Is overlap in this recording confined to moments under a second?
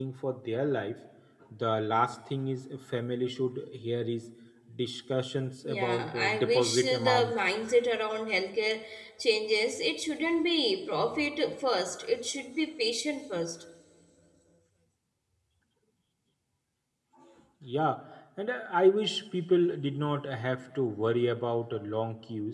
No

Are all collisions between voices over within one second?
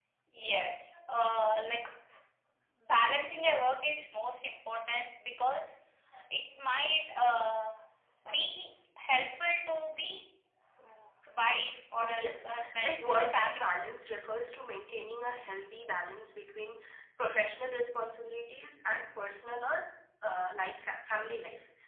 No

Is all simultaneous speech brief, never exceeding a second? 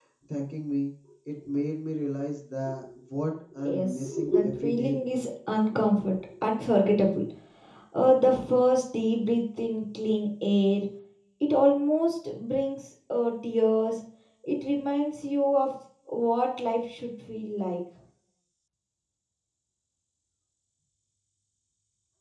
No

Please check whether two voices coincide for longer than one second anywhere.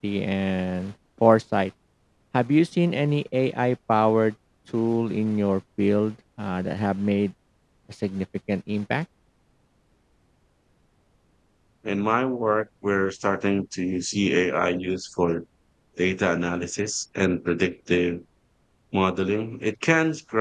No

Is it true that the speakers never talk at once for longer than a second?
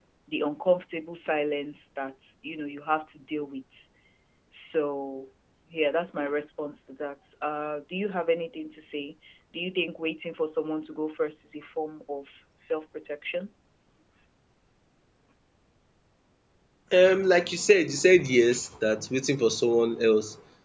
Yes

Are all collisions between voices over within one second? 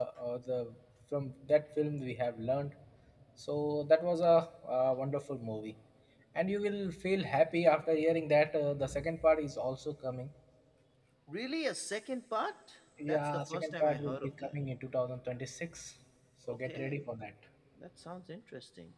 No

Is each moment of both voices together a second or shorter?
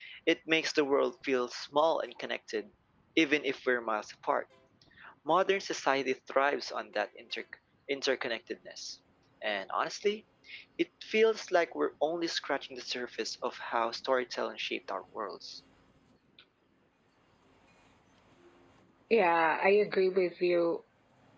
Yes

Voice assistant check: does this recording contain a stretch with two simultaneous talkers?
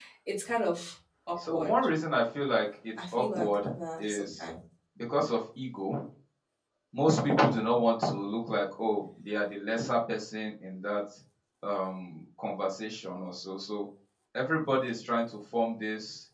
Yes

